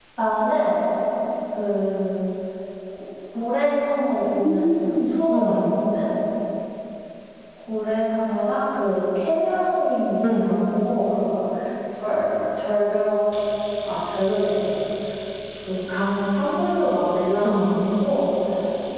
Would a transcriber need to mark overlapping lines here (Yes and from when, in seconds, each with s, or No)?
Yes, from 4.2 s